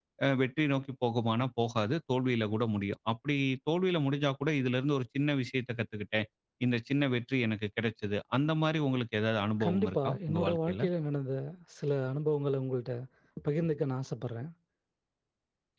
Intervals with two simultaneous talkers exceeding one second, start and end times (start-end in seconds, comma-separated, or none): 9.6-10.8